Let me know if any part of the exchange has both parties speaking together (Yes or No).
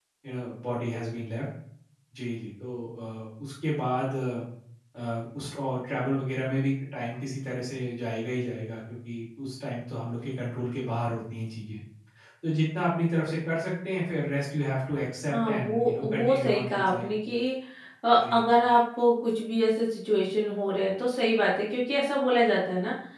Yes